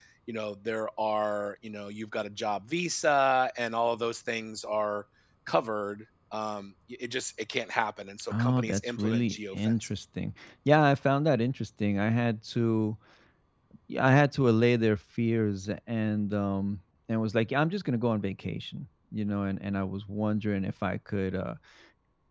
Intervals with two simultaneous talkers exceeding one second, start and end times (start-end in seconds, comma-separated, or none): 8.3-9.7